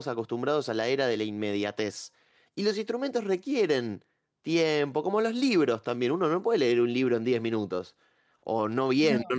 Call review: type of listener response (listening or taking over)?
listening